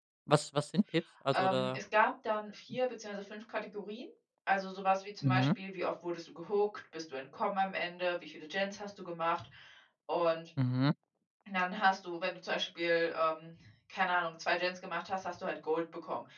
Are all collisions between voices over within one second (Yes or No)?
Yes